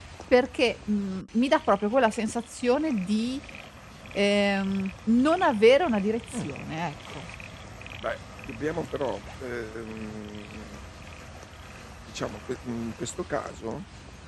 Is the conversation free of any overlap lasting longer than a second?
Yes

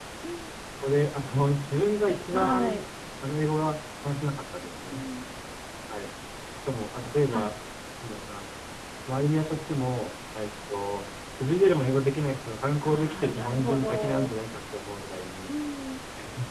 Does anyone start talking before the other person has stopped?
Yes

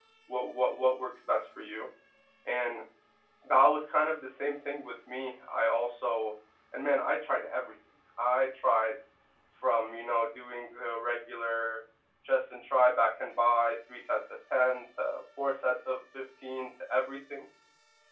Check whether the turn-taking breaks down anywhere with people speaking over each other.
No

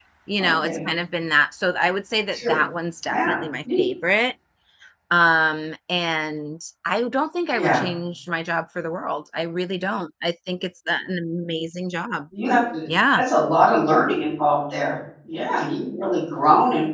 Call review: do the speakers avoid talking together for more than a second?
Yes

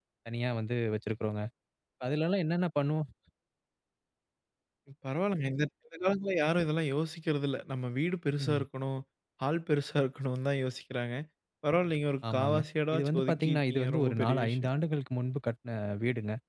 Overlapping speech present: Yes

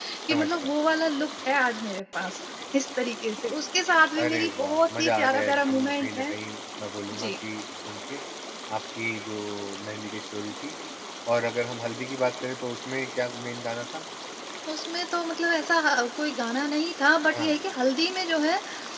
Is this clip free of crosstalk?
No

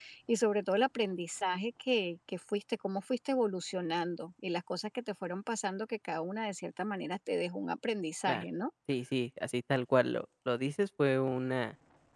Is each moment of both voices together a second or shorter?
Yes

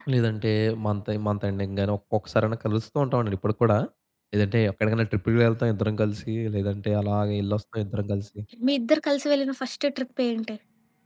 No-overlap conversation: Yes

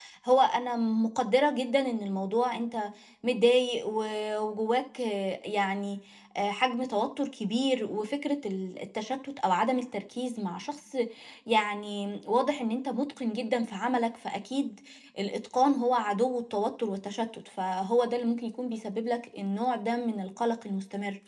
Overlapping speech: No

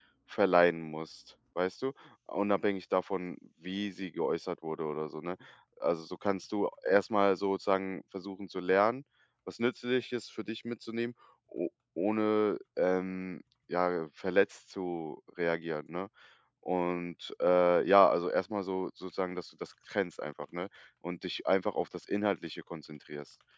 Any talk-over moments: No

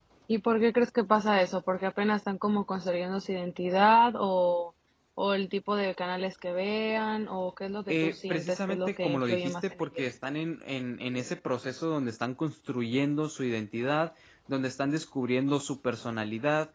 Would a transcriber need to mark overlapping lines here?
Yes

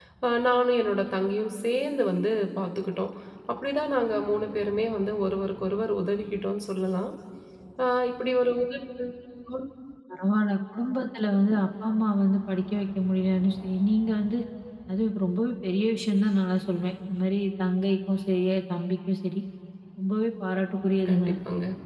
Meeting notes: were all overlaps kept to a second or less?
Yes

